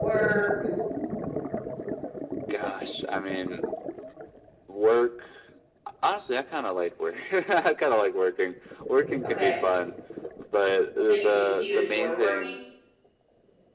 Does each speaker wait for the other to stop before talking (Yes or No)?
No